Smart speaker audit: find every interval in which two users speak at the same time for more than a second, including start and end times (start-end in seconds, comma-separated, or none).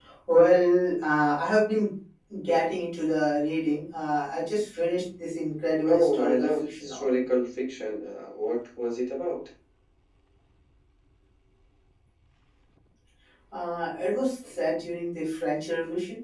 5.9-7.2